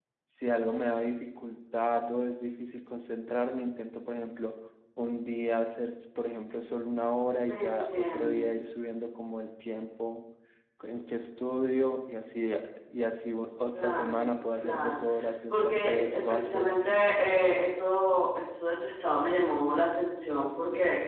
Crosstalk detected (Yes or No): Yes